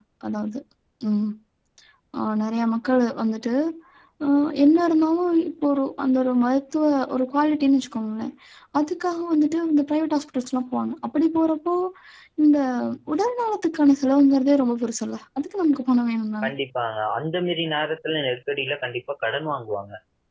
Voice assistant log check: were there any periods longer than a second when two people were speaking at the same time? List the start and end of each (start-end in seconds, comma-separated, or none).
none